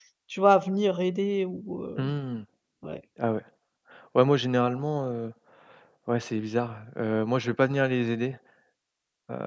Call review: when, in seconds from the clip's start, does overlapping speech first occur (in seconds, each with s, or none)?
none